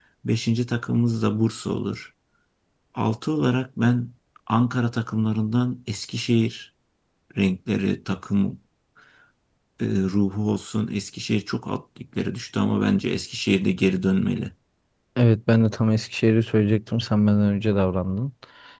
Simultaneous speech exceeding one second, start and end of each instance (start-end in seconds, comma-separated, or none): none